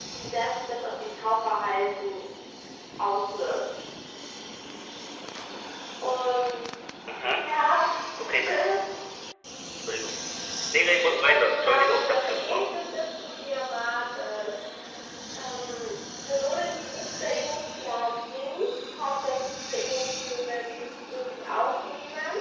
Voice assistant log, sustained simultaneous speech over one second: present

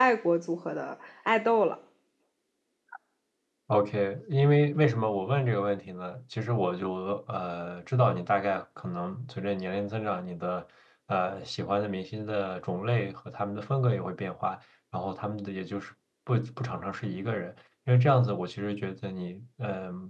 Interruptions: none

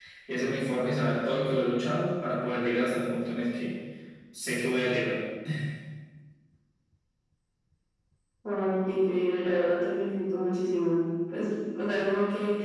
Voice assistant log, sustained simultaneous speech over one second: none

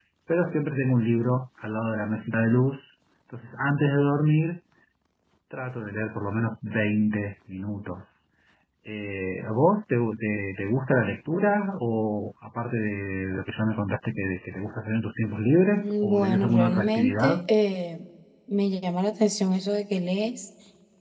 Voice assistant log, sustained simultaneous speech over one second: present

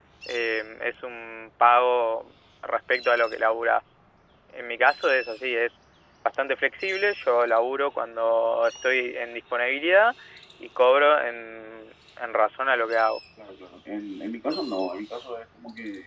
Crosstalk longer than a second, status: none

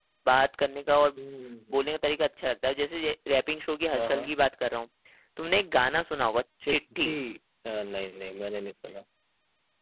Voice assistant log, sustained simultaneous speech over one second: none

